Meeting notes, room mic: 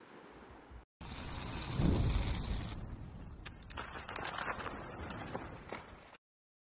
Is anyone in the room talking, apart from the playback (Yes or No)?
No